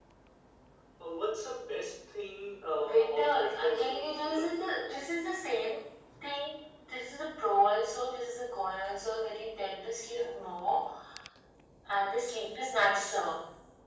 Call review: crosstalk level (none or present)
present